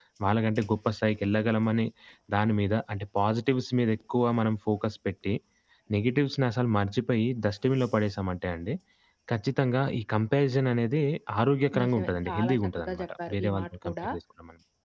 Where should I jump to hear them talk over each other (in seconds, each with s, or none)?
11.8 s